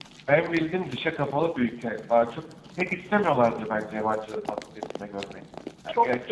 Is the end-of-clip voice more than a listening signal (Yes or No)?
Yes